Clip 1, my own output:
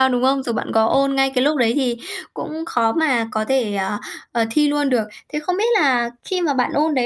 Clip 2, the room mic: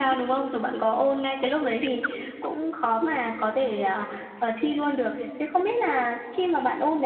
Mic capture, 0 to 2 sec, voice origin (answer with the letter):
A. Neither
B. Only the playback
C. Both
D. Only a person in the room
B